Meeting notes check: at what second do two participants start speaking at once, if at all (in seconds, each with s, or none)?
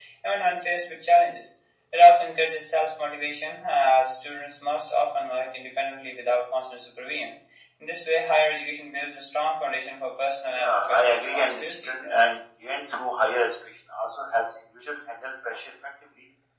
10.6 s